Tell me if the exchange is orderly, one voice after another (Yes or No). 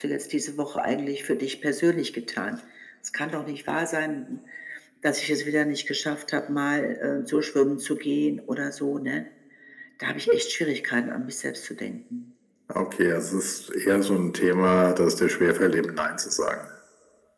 Yes